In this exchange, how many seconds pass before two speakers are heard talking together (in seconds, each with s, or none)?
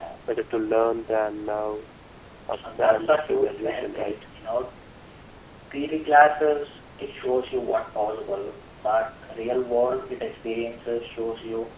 2.7 s